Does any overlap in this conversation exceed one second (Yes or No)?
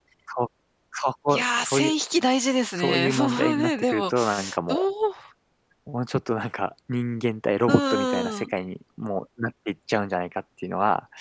Yes